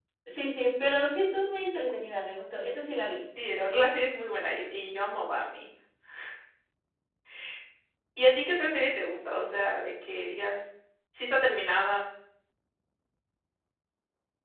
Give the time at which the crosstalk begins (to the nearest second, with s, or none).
none